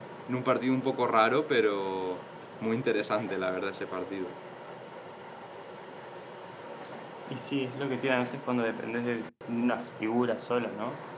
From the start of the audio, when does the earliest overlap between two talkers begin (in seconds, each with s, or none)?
none